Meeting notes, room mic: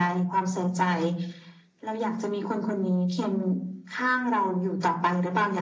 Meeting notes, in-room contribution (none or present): none